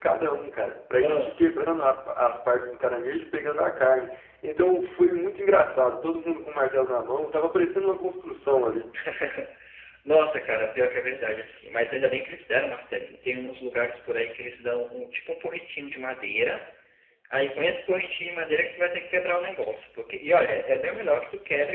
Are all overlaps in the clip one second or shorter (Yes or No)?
Yes